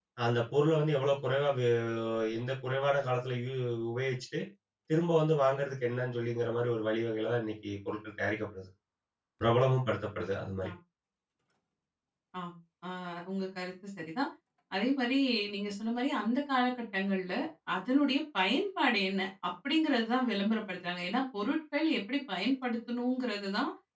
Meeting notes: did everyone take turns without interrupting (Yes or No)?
Yes